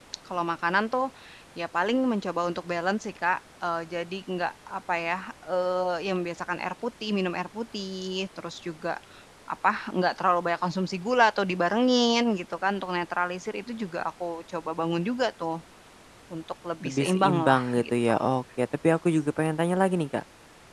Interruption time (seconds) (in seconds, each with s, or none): 16.8 s